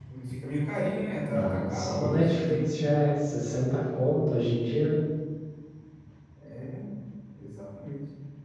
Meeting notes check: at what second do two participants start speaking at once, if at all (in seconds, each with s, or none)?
1.3 s